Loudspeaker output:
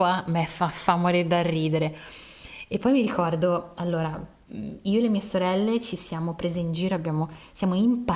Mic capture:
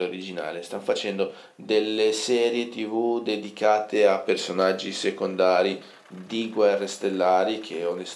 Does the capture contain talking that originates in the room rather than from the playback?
Yes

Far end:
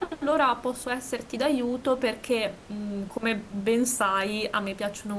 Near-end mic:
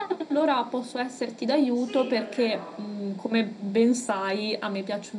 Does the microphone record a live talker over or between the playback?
Yes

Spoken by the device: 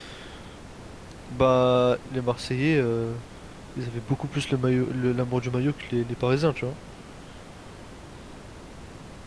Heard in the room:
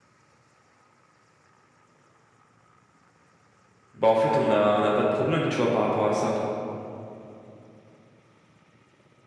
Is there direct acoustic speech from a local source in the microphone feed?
Yes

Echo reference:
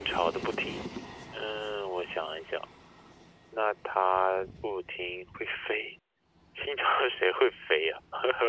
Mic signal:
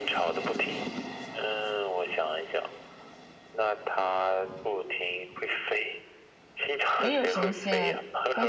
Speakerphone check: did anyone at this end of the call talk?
Yes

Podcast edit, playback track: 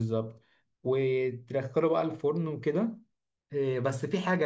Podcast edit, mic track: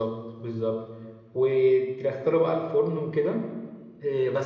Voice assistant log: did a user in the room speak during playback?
No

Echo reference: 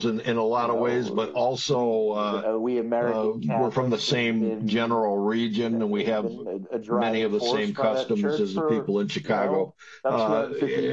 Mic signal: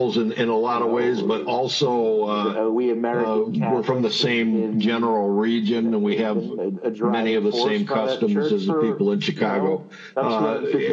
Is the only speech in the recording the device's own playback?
Yes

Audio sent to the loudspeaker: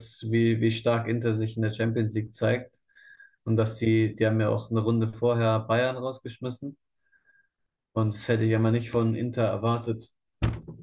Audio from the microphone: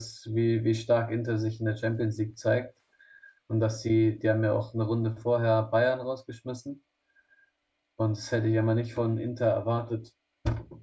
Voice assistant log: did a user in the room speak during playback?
No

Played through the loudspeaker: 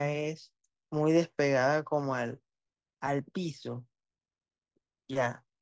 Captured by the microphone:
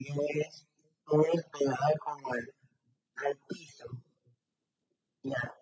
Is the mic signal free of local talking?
Yes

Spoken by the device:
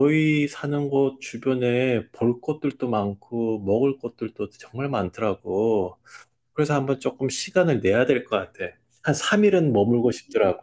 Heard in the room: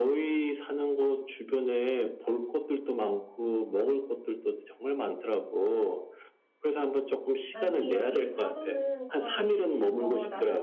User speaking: Yes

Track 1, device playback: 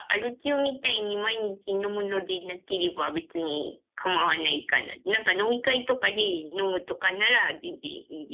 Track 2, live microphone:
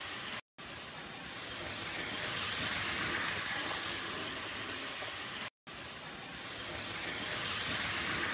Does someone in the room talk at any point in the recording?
No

